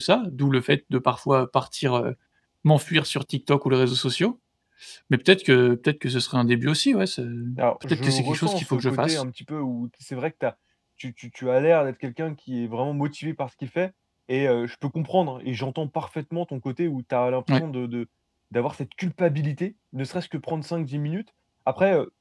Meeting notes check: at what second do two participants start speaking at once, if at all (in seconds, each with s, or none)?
7.9 s